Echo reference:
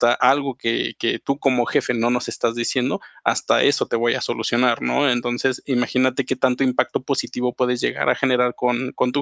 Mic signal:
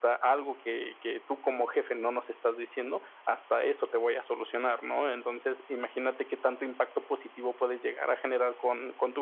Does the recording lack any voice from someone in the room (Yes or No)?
Yes